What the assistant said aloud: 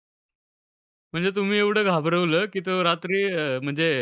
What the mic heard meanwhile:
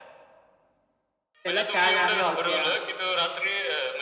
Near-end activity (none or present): present